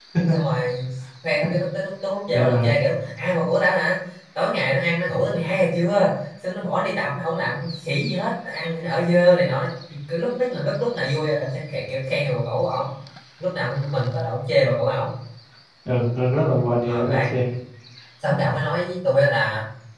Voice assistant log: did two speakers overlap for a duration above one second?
No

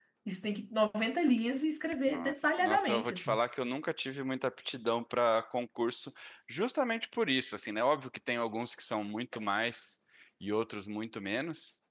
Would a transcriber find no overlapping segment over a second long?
No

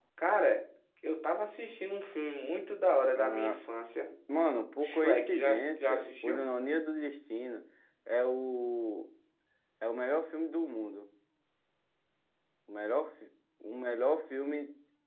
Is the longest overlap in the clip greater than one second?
Yes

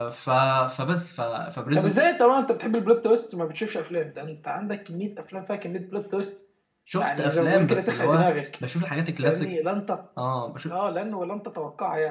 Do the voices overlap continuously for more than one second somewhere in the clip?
Yes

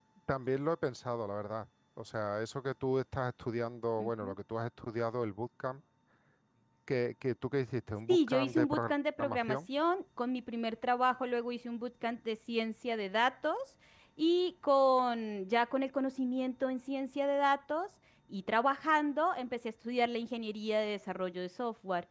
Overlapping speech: Yes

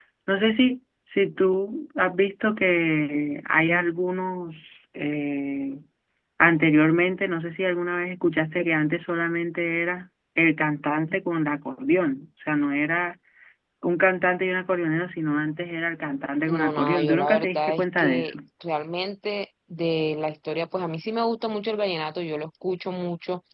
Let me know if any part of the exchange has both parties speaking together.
Yes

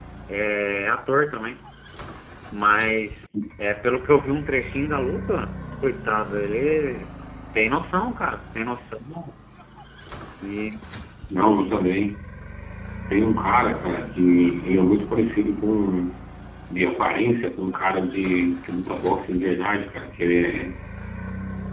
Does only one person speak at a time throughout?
Yes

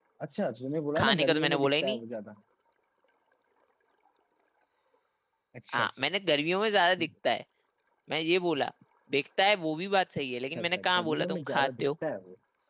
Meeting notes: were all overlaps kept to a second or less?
No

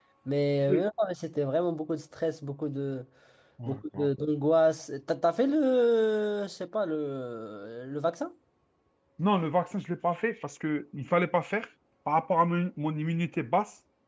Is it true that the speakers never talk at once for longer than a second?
Yes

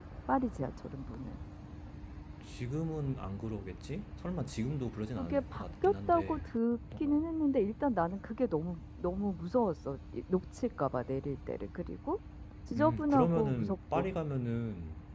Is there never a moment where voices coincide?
No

